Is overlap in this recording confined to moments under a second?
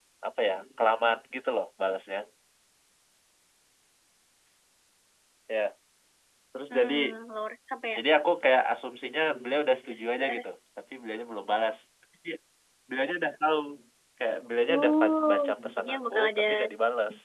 No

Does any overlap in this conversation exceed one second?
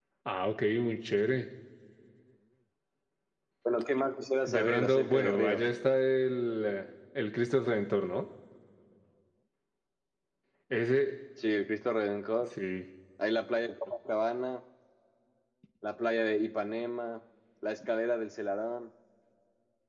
Yes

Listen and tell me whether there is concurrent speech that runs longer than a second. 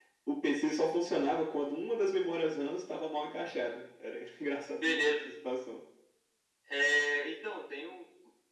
No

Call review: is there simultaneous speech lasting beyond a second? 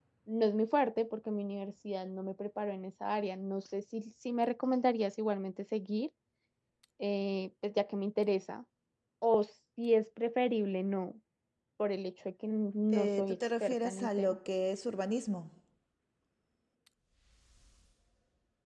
Yes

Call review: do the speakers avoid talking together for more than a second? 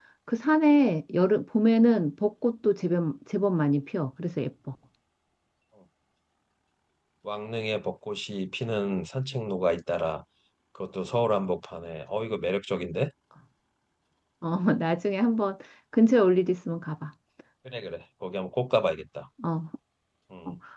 Yes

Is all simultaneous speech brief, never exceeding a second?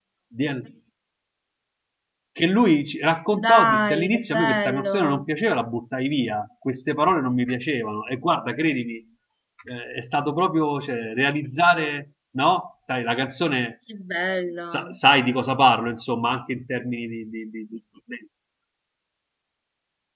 No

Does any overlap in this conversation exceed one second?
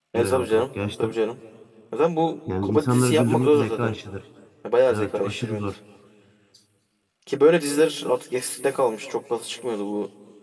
Yes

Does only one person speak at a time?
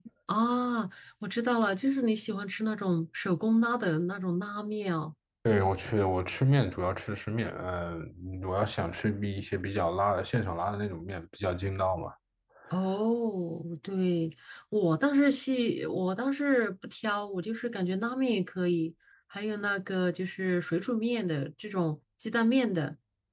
Yes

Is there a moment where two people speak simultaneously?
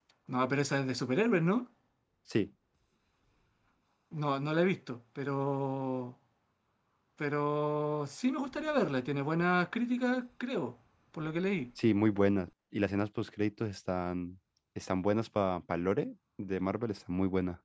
No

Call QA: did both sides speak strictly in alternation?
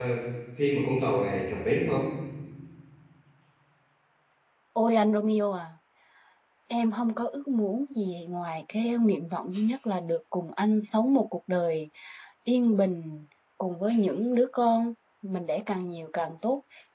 Yes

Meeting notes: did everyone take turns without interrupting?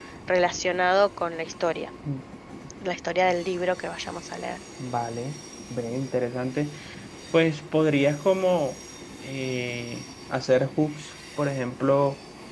Yes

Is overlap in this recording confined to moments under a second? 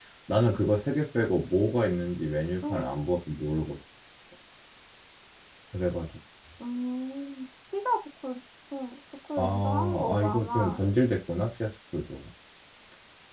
No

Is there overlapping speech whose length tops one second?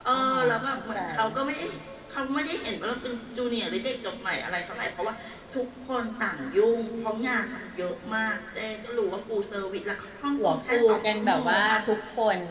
Yes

